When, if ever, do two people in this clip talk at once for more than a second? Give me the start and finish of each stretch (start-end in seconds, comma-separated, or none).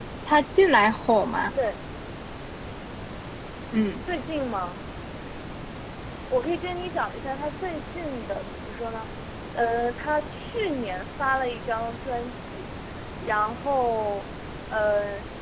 none